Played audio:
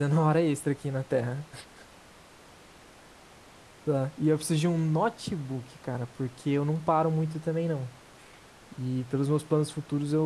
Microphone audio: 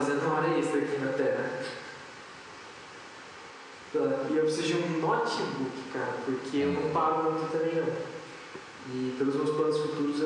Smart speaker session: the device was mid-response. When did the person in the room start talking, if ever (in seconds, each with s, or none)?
6.5 s